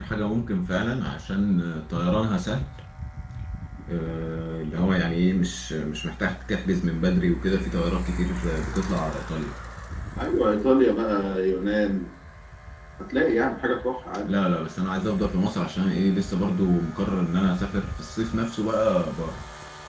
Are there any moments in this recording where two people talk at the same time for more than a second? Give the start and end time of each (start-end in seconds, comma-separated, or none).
none